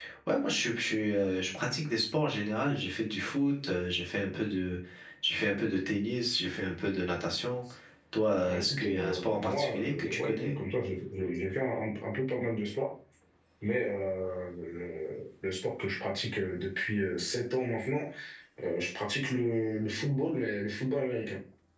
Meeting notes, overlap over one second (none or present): present